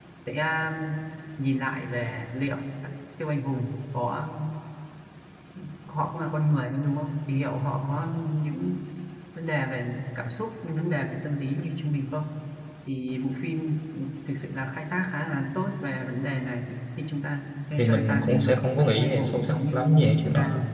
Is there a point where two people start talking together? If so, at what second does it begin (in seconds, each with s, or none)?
17.8 s